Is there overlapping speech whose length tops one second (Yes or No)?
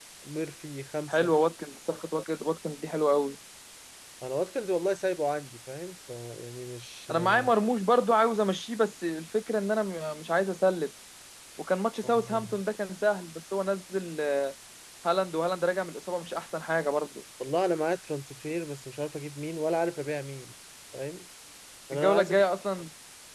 No